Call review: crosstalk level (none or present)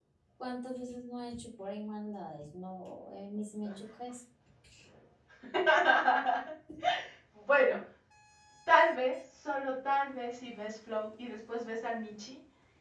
none